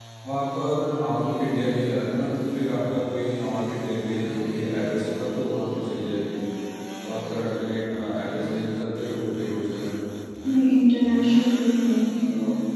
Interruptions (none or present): none